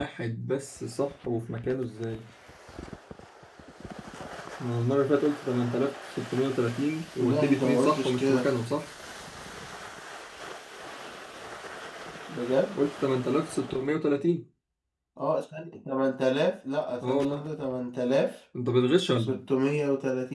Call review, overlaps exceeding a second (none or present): present